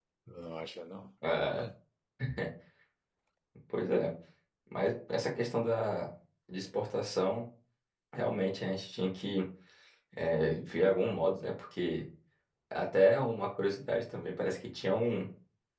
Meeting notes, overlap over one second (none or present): none